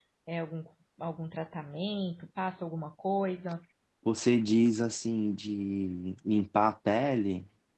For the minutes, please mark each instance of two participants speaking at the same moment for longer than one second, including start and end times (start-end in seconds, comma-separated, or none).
none